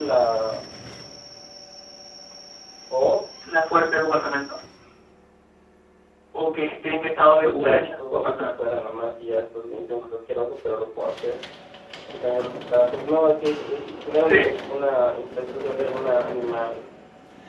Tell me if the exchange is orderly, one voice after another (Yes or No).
No